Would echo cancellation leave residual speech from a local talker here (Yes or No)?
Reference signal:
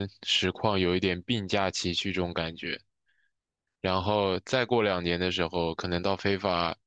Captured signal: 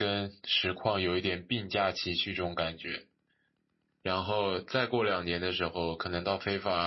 No